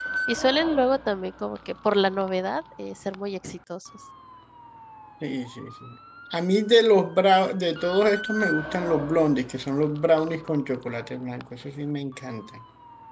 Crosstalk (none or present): none